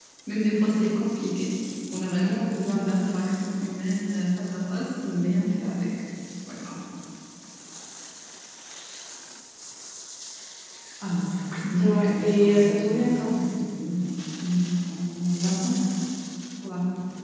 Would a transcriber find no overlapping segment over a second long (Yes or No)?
No